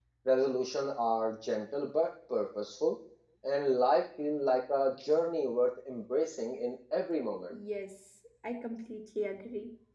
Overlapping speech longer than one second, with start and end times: none

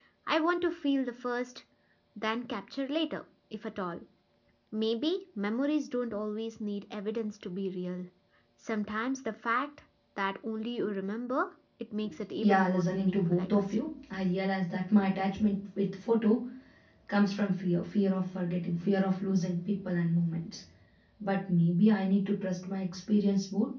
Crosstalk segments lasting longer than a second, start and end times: 12.4-13.8

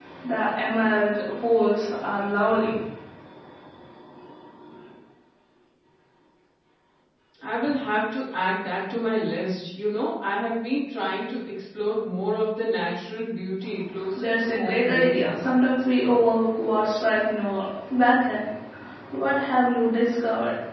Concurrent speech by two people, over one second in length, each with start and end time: 14.2-15.4

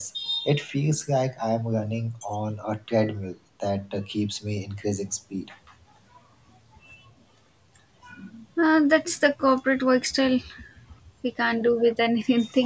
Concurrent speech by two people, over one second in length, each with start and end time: none

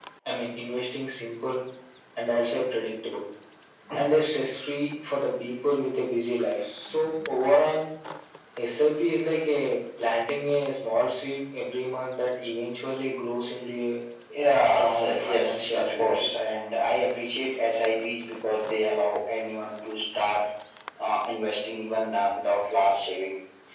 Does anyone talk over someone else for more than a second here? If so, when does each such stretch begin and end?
14.8-16.3

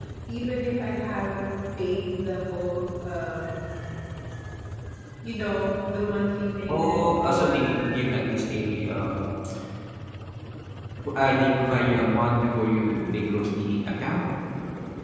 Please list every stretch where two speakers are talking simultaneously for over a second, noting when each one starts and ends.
6.7-8.1

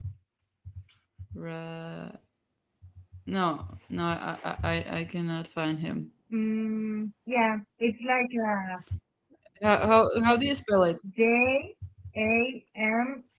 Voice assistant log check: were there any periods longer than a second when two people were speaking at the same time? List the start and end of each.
none

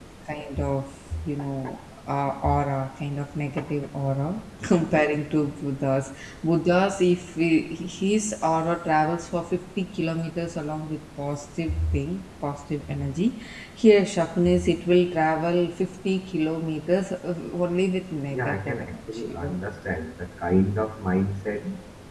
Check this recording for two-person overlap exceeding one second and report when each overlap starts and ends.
18.3-19.6

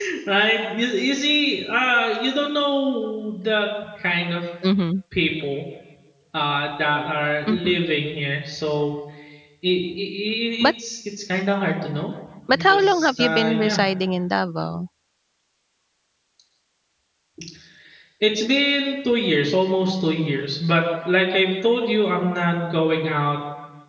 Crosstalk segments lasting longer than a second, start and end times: 12.5-13.8

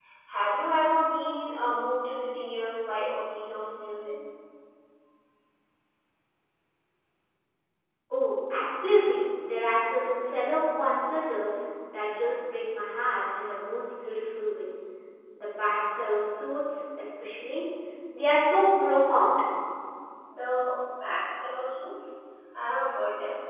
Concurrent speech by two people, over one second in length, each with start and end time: none

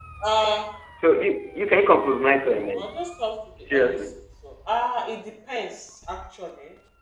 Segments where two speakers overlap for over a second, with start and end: none

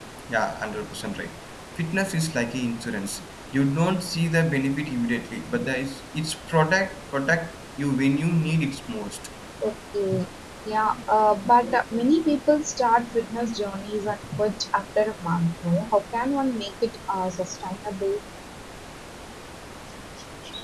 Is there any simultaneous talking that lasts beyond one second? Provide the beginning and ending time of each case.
none

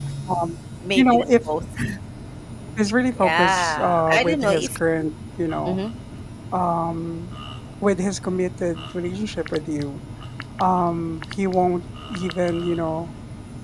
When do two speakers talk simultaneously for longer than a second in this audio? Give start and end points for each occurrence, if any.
3.2-5.1

